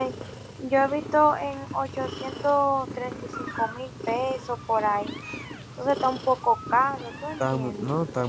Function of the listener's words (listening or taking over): taking over